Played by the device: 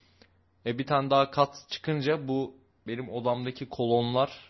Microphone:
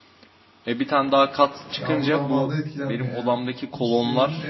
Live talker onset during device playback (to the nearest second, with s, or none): 2 s